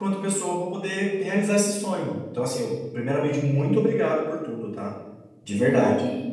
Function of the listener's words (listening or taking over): taking over